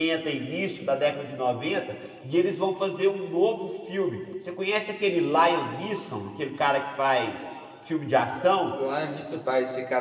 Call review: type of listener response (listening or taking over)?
taking over